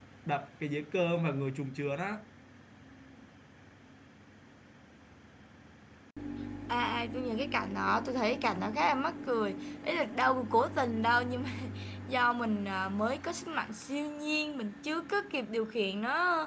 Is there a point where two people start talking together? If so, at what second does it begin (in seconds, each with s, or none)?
none